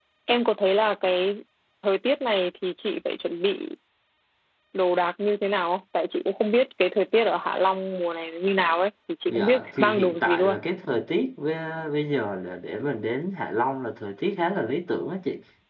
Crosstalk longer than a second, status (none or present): present